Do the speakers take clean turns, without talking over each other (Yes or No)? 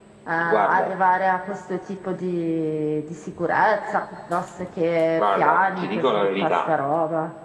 No